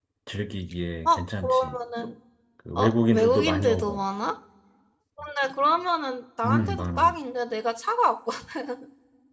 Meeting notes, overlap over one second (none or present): present